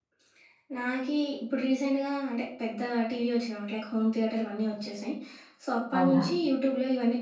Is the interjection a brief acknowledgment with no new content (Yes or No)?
Yes